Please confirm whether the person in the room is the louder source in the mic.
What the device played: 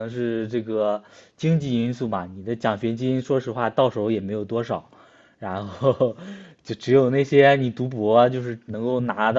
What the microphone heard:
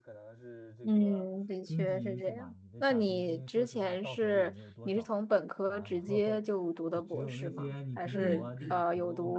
Yes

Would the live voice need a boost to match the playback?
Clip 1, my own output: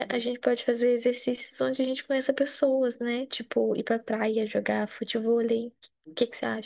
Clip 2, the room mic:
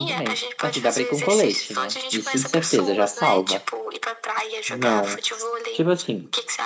No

